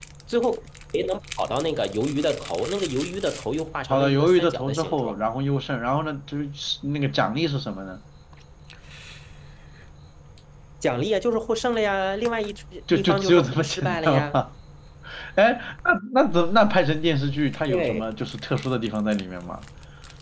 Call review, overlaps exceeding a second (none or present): present